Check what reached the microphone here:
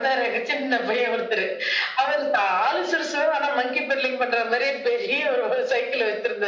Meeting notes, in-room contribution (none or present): none